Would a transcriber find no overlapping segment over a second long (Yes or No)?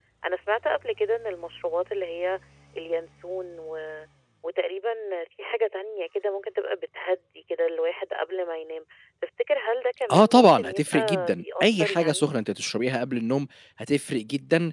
No